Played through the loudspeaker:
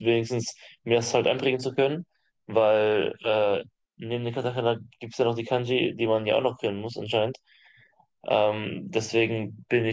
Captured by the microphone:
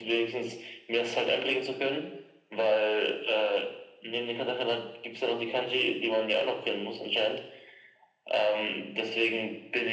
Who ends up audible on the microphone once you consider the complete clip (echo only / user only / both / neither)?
echo only